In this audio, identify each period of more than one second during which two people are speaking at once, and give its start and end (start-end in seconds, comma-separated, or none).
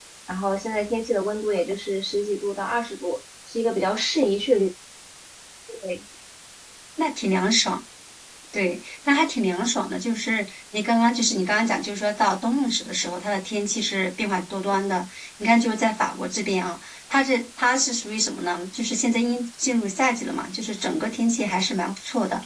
none